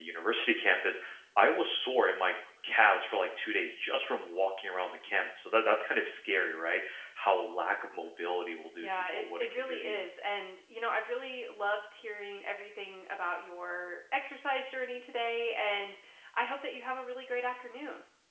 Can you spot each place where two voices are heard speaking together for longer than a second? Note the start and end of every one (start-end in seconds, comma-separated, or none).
8.8-10.0